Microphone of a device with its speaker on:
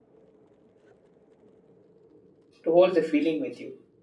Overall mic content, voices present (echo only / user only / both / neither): user only